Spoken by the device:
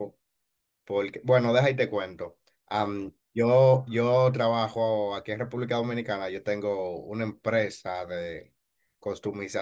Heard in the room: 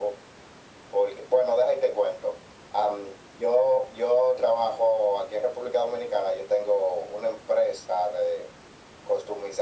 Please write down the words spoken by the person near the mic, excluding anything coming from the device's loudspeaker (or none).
none